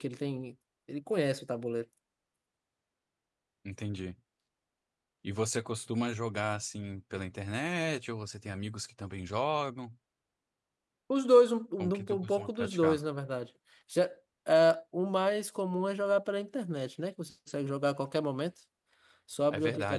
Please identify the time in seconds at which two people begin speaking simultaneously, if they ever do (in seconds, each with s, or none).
11.8 s